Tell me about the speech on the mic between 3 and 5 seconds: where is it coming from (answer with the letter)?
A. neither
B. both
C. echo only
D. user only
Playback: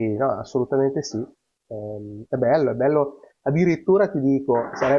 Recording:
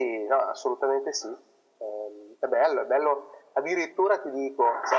C